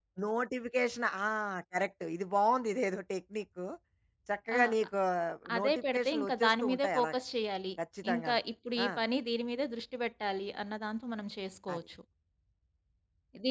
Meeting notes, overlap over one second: present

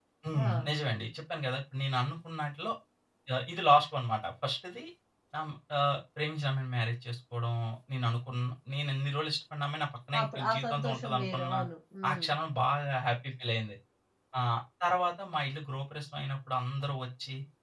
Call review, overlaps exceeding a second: present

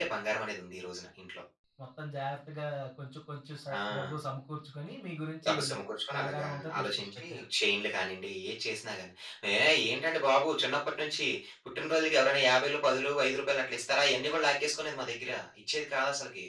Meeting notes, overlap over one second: present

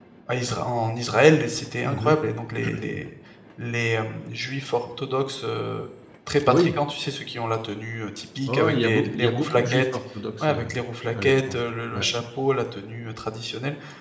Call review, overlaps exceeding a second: present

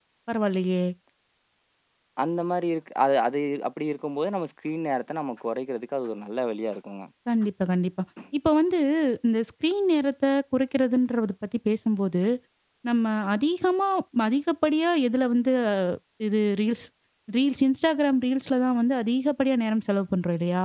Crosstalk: none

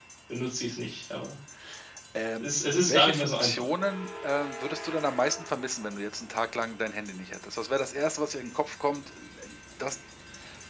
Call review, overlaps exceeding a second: present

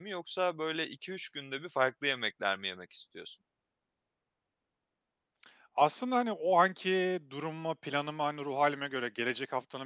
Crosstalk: none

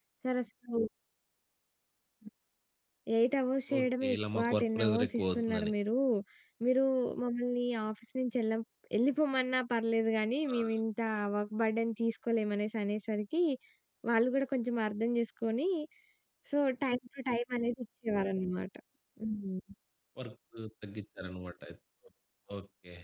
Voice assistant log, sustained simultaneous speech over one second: present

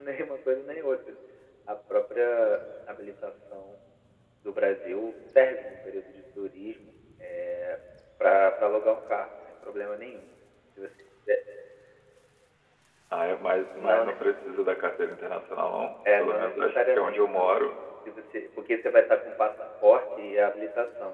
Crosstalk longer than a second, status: present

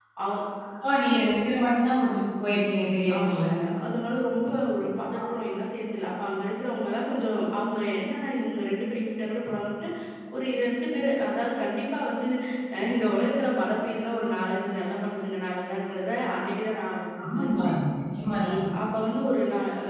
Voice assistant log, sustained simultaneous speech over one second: none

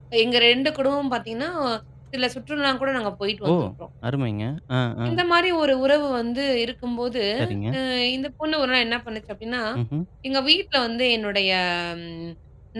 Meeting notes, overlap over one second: none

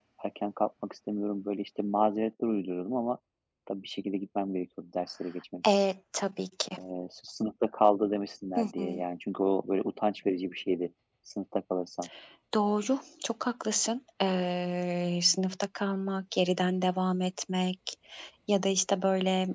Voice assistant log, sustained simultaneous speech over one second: none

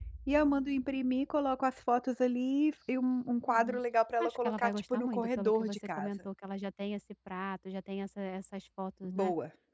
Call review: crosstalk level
present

